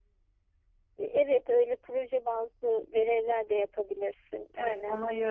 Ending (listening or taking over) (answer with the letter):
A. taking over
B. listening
A